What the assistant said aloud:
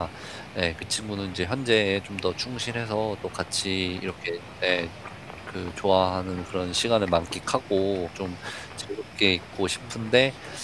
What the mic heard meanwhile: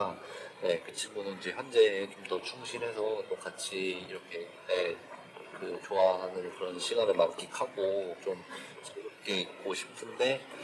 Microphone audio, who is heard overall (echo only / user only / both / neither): echo only